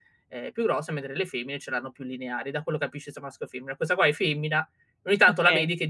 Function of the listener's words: listening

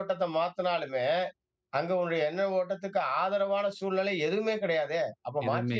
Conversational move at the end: listening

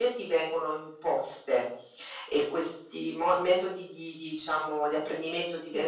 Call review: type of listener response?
listening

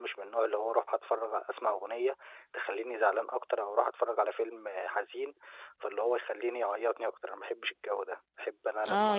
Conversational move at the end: taking over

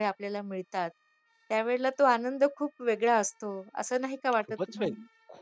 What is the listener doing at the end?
taking over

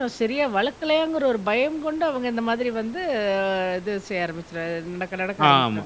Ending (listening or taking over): taking over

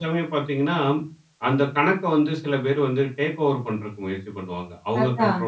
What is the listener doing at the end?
listening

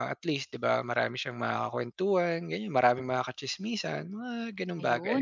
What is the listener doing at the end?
taking over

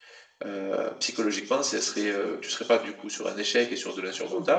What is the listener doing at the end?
listening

